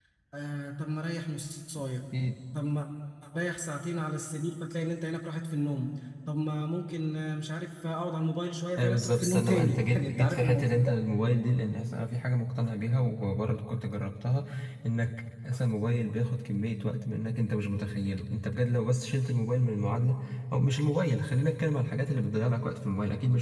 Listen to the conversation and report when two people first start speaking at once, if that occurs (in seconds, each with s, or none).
8.8 s